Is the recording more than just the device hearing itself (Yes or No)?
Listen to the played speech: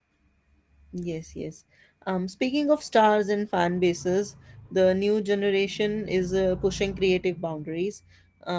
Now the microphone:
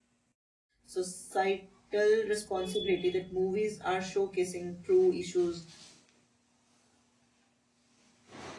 Yes